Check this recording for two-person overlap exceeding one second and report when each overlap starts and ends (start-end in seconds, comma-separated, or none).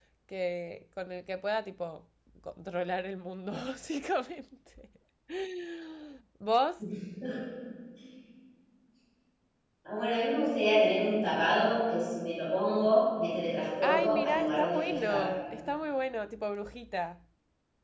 13.8-15.2